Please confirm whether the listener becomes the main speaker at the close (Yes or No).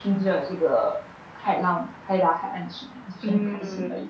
Yes